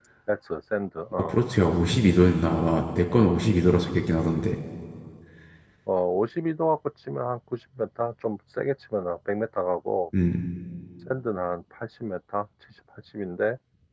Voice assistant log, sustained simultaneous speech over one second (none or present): none